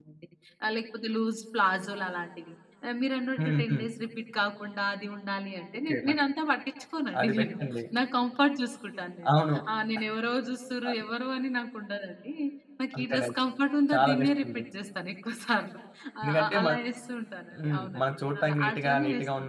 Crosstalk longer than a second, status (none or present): present